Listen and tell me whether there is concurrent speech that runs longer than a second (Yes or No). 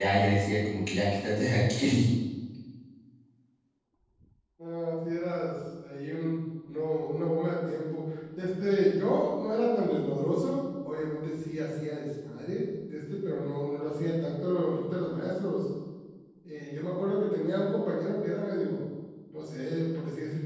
No